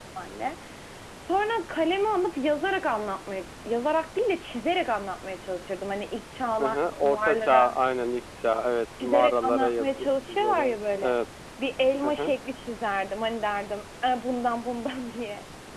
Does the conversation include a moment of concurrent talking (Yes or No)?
Yes